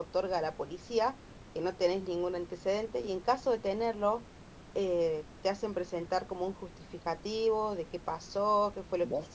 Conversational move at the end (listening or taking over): listening